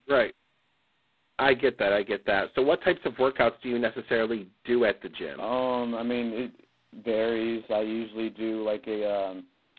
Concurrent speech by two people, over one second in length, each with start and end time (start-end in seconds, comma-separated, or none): none